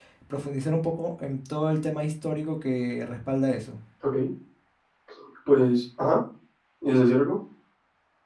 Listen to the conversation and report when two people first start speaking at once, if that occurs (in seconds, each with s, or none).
none